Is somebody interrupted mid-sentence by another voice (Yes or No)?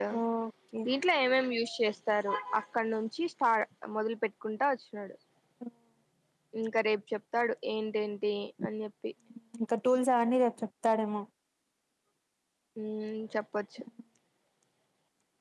No